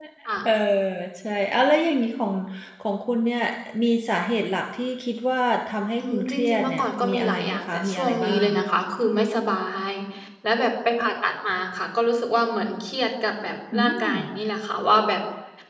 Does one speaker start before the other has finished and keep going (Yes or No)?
Yes